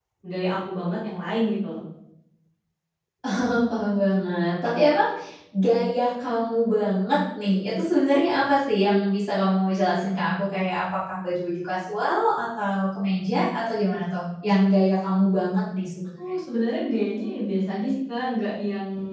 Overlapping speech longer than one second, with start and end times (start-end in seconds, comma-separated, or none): none